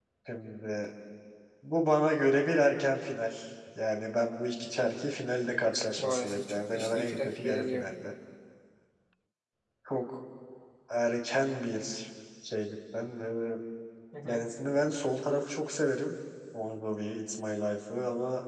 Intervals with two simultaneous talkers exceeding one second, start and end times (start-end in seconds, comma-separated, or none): 6.0-7.9